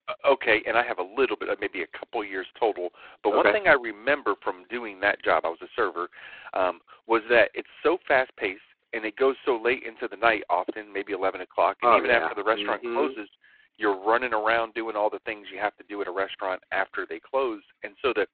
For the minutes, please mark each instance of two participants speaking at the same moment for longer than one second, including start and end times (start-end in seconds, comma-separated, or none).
11.8-13.2